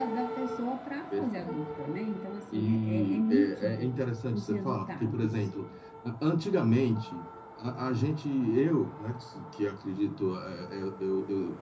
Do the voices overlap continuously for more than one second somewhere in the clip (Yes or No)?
Yes